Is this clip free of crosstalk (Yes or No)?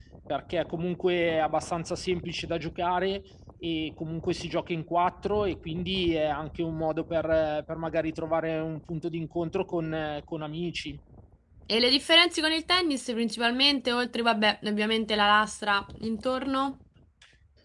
Yes